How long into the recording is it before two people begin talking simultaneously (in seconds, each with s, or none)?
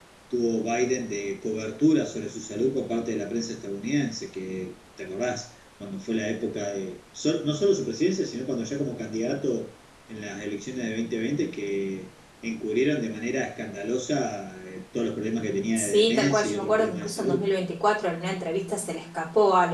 15.8 s